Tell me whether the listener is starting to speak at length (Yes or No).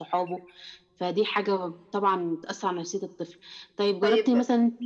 No